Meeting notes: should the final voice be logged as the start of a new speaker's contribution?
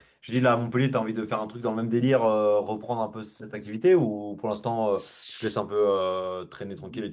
Yes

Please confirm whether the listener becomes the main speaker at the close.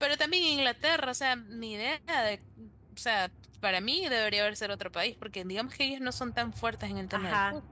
Yes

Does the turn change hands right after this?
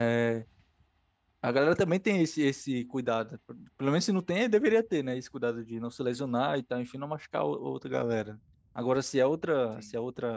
No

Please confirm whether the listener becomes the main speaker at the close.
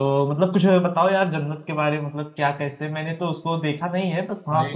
No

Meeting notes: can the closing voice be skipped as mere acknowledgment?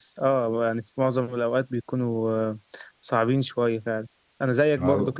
Yes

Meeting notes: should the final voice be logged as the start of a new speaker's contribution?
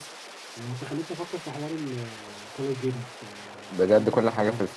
Yes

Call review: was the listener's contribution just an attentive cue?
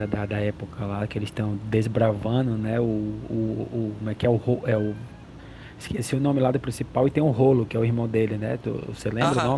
No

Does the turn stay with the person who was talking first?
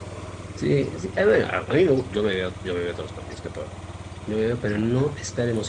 Yes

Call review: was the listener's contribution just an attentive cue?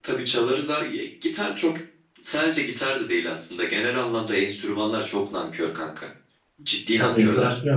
No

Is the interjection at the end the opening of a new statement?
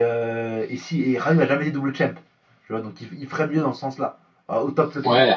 Yes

